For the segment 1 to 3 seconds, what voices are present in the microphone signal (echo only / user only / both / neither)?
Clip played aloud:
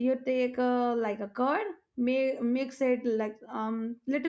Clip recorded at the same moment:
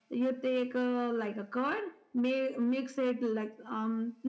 echo only